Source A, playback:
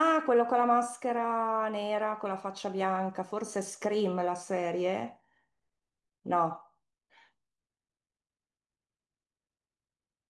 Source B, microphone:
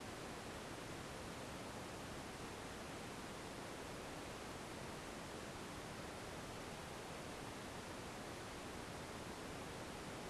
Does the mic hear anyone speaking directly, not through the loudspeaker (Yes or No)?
No